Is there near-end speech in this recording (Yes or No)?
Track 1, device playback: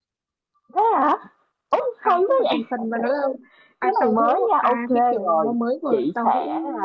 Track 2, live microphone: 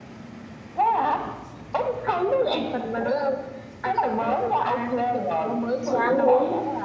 Yes